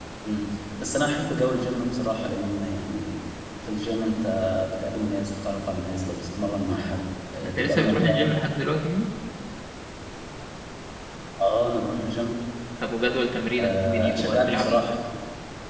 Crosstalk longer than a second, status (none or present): present